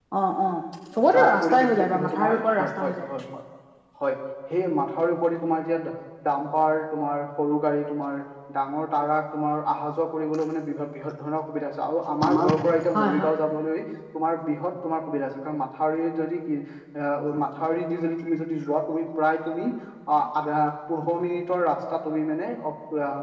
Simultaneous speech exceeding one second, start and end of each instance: 1.1-2.9

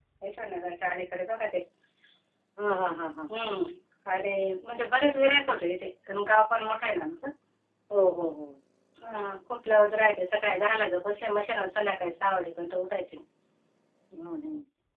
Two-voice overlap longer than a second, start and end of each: none

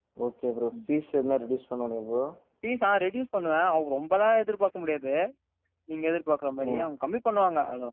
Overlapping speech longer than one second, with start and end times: none

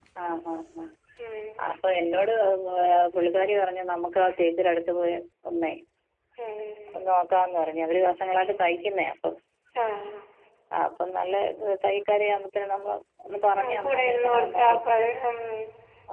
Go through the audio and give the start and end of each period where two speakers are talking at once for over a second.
13.6-14.8

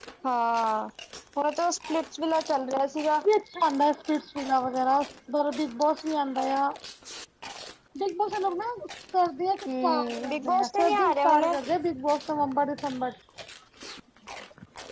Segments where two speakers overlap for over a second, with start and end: 9.8-11.6

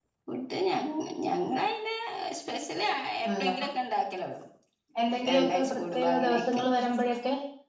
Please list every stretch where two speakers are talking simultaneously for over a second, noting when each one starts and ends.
5.3-6.6

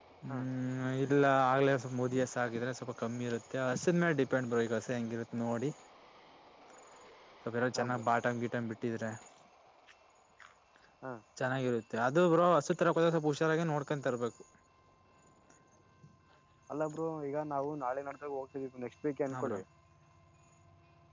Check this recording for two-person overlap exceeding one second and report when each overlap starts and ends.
none

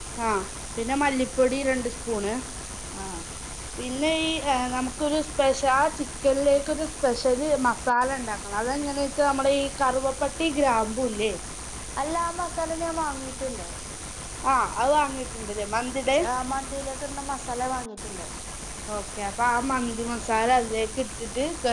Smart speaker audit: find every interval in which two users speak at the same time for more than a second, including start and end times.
none

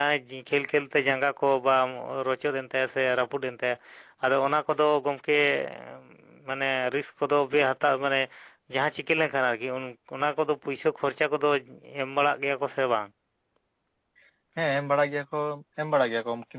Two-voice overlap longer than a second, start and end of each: none

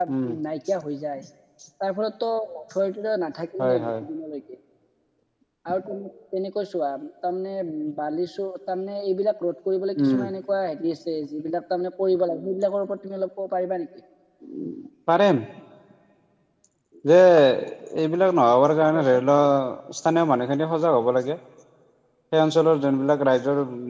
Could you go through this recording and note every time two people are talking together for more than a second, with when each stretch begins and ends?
none

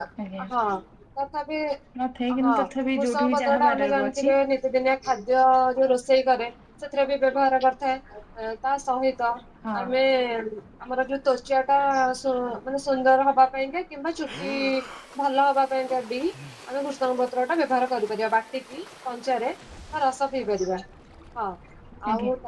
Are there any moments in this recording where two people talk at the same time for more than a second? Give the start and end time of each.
3.0-4.3

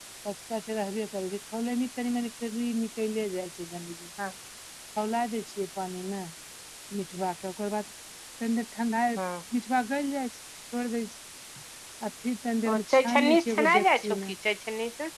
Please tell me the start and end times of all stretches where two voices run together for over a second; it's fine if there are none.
12.7-14.1

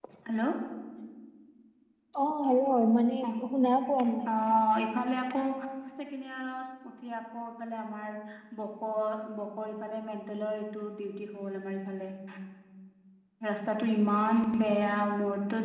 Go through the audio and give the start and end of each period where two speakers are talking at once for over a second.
none

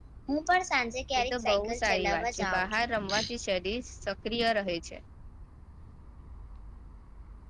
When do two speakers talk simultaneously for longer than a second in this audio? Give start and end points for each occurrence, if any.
1.2-2.8

